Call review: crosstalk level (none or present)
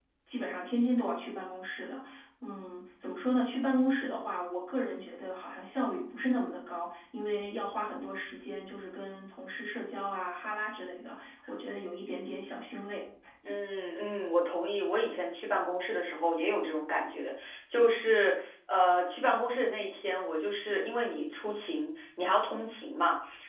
none